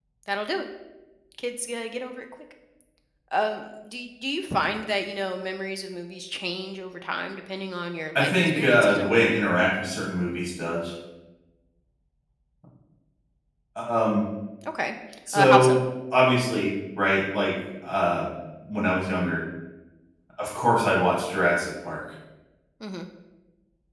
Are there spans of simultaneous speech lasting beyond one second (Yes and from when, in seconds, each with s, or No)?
Yes, from 8.2 s